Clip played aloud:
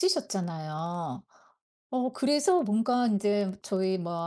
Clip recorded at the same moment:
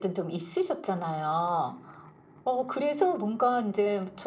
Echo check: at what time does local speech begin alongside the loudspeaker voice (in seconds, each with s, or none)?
none